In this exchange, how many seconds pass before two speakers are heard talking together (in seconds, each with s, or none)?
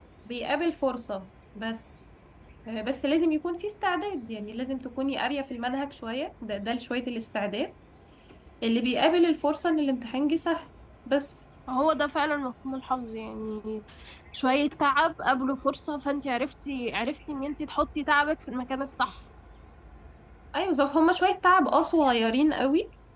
none